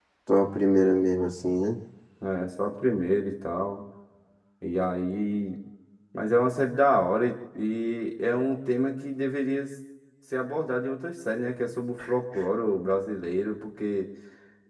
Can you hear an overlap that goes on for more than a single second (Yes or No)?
No